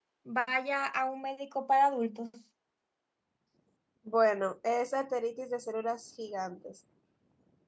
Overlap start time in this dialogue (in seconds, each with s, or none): none